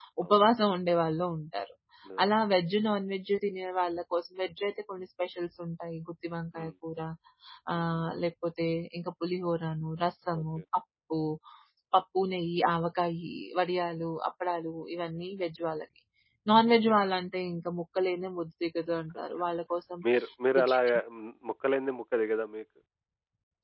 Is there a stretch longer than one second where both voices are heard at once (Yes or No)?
No